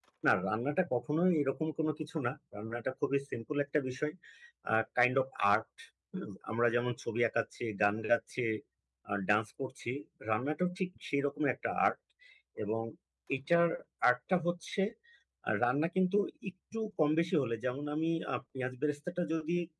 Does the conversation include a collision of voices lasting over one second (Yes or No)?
No